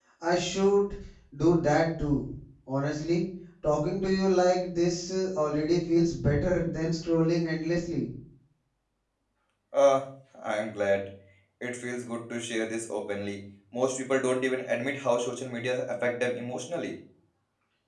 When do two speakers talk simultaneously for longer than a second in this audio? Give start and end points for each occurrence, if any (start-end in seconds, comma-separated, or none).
none